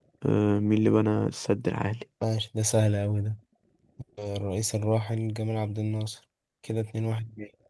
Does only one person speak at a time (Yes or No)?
Yes